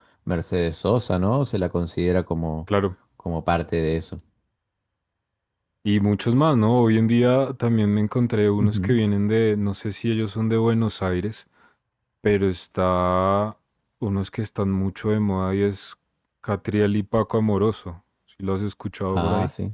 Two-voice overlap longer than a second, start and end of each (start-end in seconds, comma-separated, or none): none